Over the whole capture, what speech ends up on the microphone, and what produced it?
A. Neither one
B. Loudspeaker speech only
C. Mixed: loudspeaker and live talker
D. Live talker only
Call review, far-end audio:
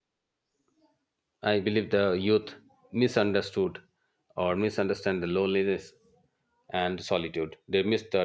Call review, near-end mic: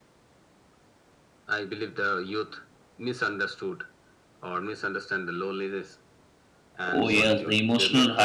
C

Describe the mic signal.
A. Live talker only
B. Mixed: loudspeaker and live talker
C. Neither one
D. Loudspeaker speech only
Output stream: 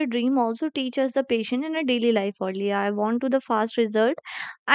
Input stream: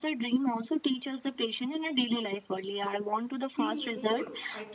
B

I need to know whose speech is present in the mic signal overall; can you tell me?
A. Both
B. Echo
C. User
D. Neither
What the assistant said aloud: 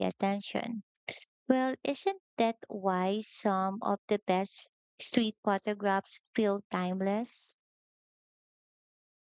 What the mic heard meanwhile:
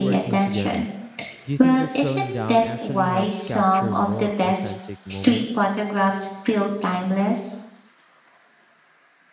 A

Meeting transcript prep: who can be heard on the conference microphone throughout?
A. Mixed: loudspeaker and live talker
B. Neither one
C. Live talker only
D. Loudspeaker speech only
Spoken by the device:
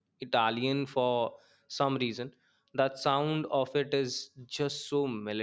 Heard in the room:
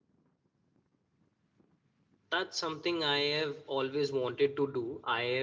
C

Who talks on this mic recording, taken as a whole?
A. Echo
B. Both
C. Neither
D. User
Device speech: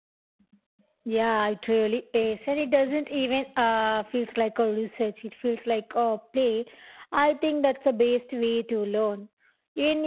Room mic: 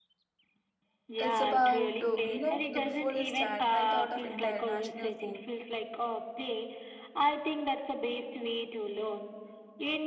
B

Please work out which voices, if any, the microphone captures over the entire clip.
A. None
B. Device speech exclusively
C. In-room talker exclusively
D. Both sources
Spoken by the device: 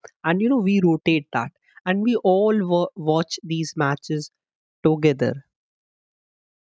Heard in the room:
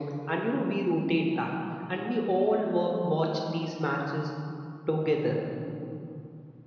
B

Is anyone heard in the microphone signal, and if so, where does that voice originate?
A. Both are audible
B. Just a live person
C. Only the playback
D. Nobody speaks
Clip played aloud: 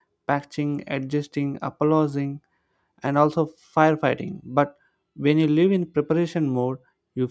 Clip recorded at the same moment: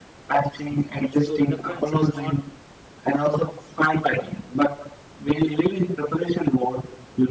A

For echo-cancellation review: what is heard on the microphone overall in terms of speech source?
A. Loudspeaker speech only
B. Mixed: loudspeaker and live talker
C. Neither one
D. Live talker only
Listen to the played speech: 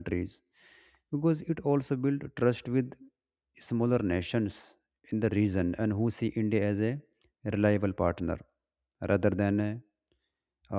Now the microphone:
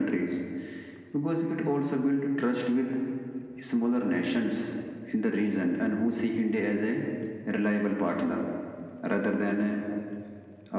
A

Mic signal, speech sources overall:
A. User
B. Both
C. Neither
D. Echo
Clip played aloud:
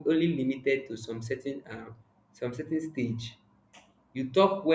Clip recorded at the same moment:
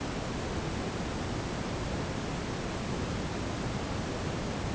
C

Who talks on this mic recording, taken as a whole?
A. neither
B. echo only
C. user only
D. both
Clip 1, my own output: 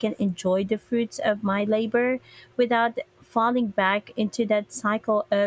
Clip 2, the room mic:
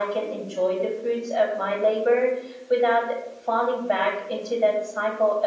B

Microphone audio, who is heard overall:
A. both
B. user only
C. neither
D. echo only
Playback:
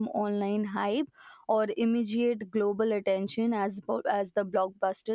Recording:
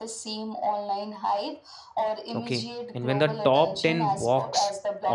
A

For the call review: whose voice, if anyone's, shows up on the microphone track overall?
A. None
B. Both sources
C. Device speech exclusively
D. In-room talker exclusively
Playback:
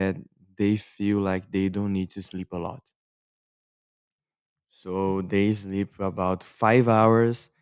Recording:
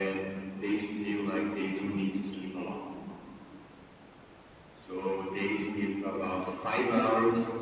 C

